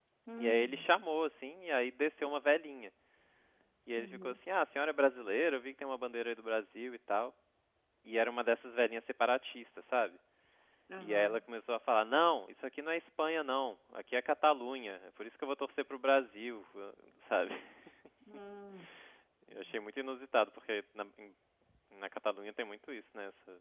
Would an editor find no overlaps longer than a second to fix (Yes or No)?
Yes